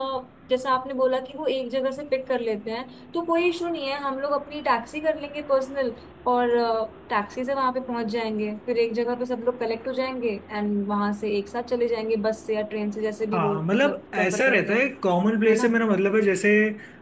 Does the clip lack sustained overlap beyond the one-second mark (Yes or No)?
No